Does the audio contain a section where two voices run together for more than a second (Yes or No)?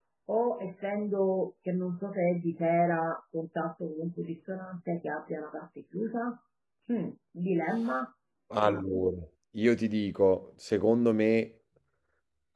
No